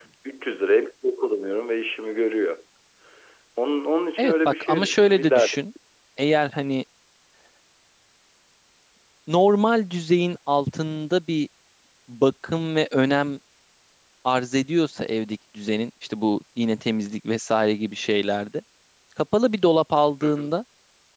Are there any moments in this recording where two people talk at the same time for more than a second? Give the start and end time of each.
4.2-5.5

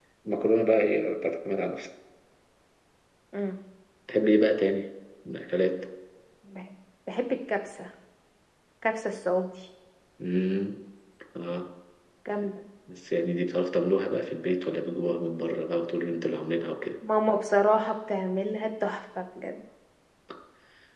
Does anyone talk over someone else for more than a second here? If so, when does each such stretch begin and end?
none

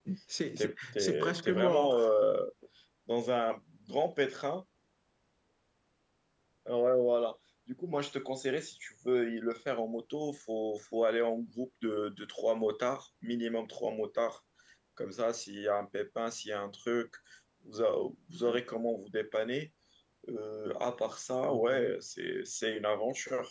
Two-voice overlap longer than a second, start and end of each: 0.6-2.0

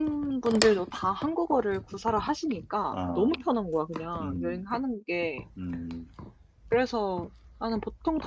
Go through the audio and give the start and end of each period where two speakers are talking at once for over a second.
none

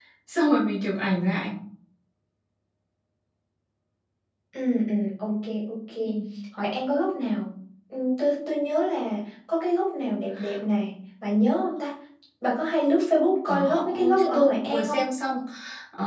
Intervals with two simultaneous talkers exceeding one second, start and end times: 13.4-15.0

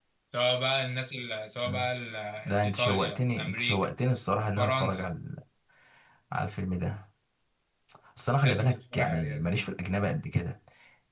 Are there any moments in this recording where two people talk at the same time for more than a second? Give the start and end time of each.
2.4-3.9, 8.4-9.7

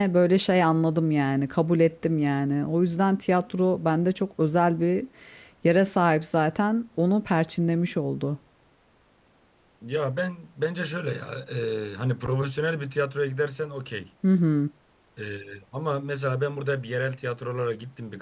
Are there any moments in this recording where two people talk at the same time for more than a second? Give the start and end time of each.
none

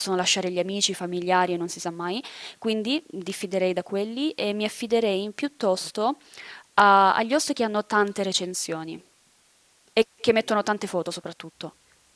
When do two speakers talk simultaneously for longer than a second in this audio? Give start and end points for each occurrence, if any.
none

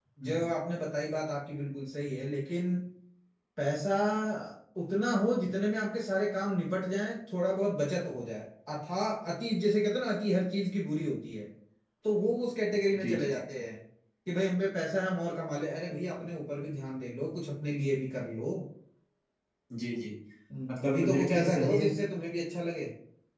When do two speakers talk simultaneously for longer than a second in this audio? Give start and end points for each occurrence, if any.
20.7-21.9

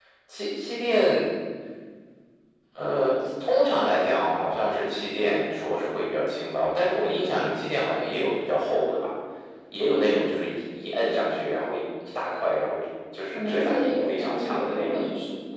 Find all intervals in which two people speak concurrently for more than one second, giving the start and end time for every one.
13.3-15.0

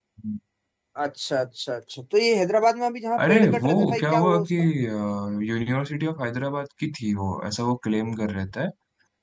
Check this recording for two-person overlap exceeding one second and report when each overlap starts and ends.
3.3-4.5

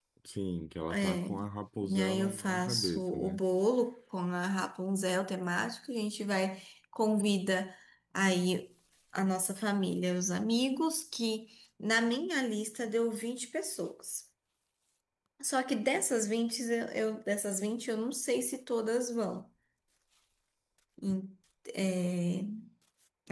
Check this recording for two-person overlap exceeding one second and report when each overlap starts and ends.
1.9-3.4

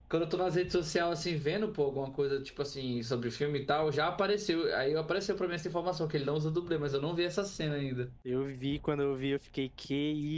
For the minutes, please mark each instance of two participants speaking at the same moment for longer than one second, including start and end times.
none

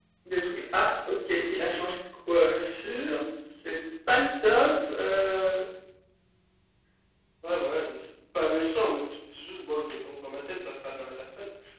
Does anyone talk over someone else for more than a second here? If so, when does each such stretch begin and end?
none

